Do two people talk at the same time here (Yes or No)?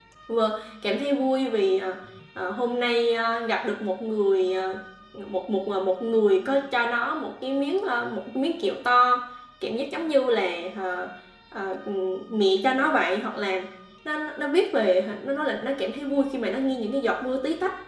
No